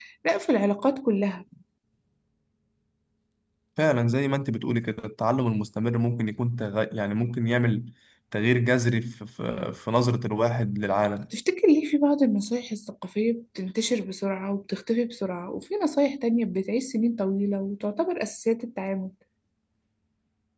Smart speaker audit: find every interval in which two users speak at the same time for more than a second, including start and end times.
none

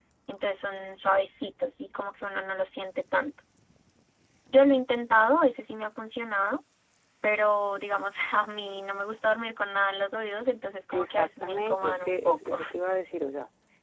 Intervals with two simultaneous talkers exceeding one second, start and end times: 10.9-12.6

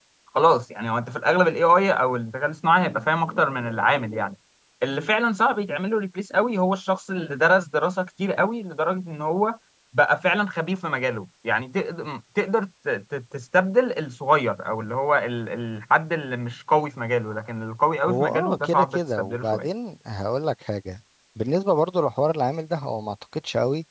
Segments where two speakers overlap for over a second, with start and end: 18.1-19.7

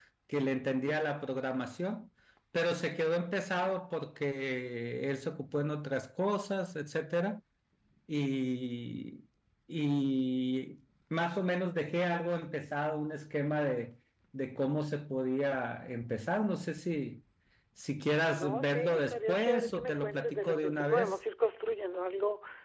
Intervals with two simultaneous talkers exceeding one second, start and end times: 18.3-21.2

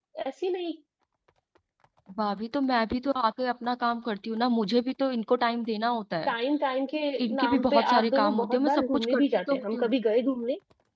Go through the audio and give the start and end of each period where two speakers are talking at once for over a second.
7.4-9.9

